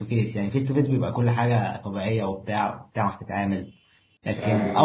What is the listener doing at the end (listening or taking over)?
listening